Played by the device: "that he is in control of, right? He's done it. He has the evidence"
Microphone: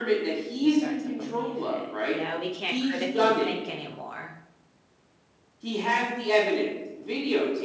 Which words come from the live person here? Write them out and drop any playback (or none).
You start to believe it. Yeah, we can't critically think anymore.